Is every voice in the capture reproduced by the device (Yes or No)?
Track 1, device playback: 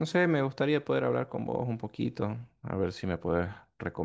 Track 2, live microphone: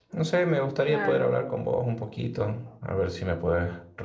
No